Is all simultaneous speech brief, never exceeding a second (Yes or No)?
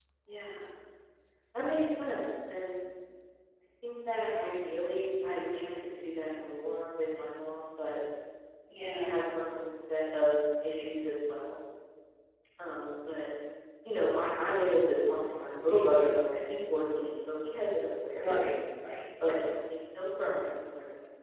Yes